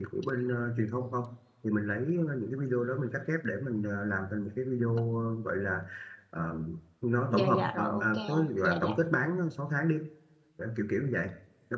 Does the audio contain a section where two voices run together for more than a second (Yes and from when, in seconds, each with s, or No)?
Yes, from 7.3 s